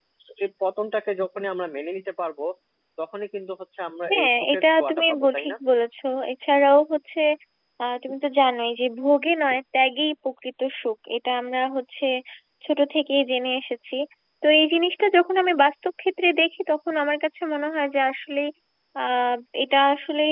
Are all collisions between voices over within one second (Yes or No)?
No